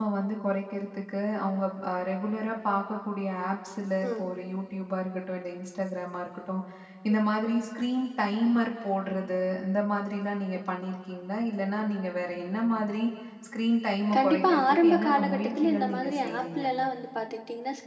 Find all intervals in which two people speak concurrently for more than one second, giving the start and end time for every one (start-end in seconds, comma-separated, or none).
14.1-16.6